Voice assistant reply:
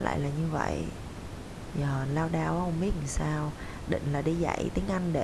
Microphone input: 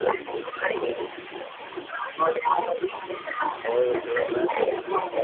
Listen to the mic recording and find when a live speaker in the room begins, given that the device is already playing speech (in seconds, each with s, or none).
3.6 s